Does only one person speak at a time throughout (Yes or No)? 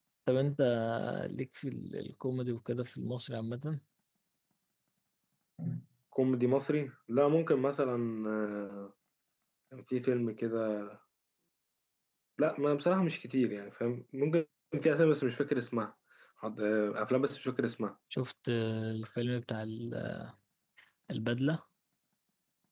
Yes